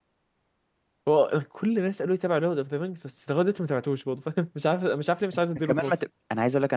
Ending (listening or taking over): taking over